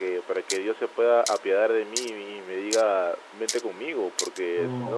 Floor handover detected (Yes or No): Yes